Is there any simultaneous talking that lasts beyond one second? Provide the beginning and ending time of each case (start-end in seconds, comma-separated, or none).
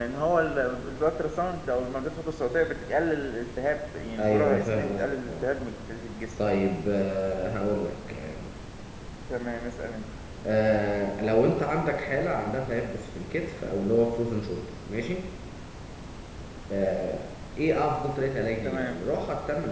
4.2-5.5